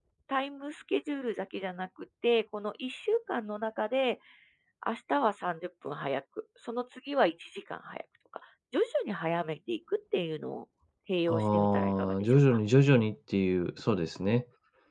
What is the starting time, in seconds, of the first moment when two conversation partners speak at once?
11.3 s

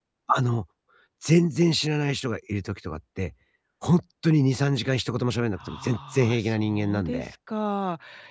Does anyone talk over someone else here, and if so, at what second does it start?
5.6 s

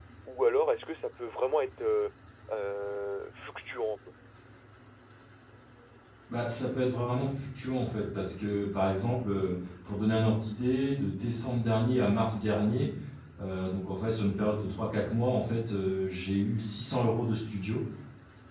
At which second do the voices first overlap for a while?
none

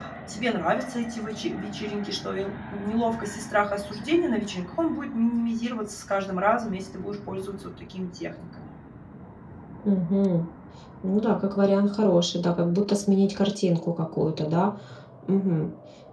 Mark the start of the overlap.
none

